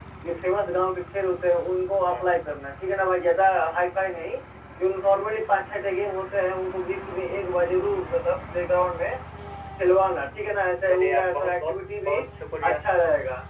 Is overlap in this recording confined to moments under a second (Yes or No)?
No